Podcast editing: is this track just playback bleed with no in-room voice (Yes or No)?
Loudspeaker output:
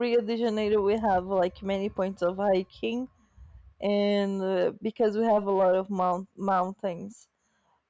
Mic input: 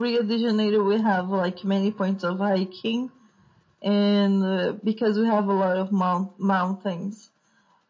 Yes